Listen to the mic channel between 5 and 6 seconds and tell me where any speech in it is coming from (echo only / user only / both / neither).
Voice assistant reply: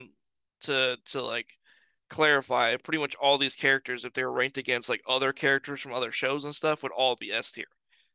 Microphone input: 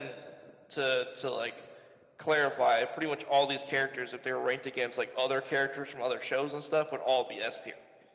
echo only